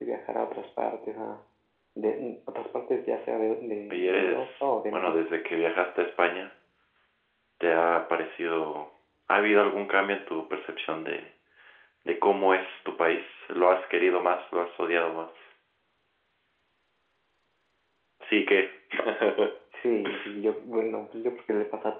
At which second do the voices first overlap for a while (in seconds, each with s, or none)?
3.9 s